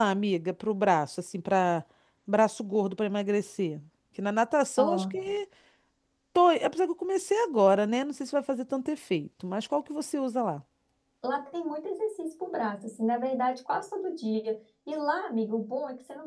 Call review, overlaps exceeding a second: none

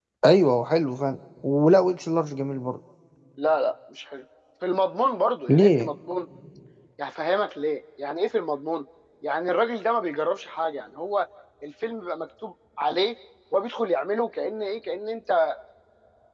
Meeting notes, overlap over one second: none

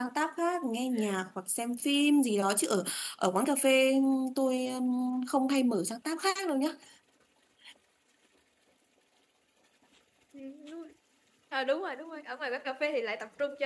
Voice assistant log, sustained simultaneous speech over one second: none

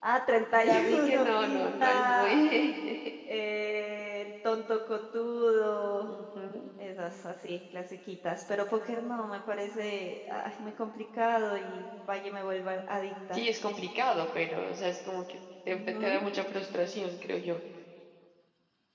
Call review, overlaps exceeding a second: present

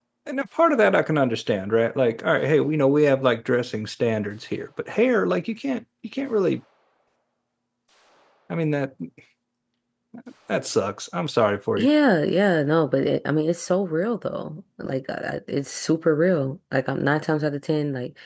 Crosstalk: none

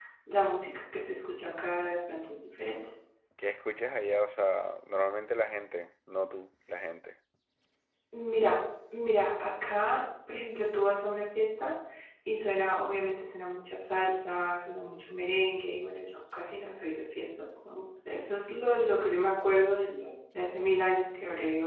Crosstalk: none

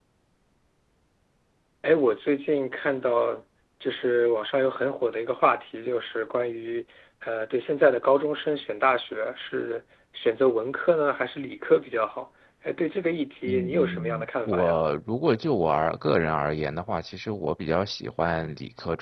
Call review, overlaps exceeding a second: present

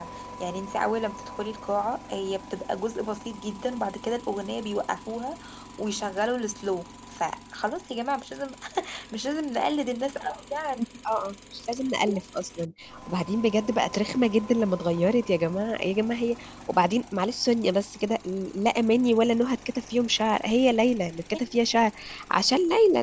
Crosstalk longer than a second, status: none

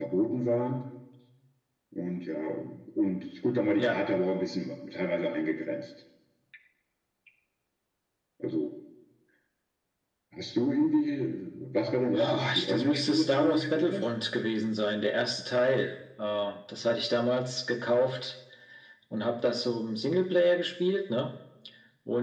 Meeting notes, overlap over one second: present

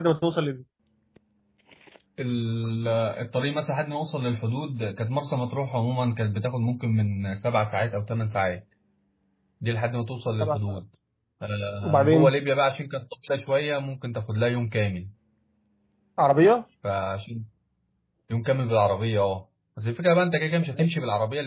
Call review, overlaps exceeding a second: none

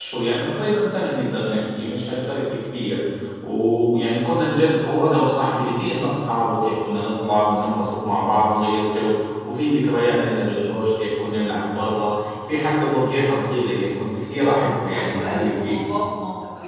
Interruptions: present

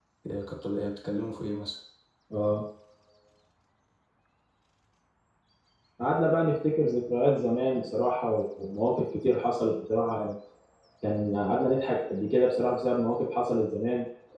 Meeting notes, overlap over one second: none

